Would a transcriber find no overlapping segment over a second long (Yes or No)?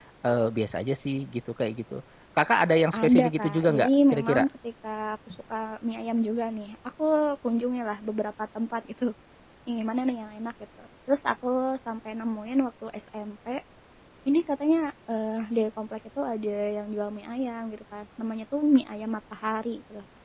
No